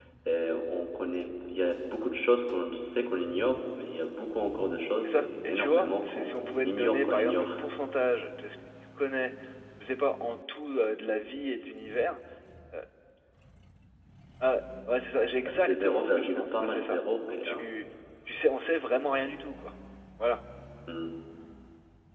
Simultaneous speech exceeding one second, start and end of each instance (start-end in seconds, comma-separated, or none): 5.0-7.5, 15.5-17.6